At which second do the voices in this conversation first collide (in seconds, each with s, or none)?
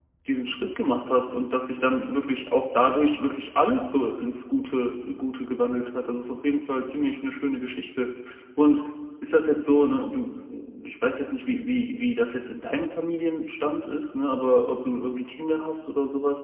none